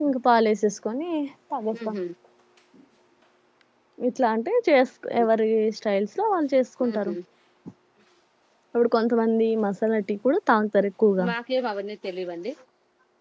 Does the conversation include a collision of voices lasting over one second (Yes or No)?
No